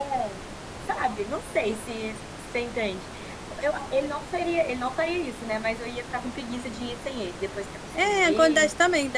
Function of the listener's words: taking over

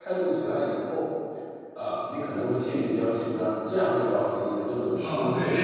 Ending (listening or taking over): taking over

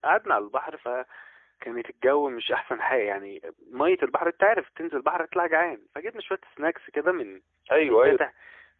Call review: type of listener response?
listening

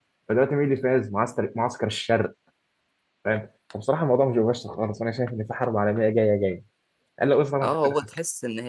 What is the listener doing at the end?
taking over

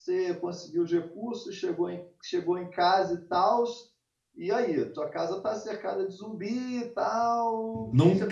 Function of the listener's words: taking over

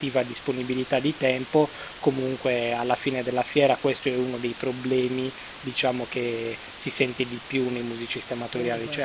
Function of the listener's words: listening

